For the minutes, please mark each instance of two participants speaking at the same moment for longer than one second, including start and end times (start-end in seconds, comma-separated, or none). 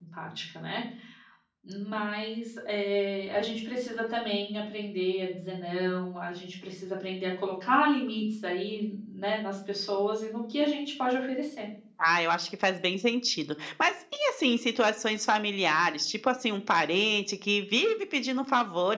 none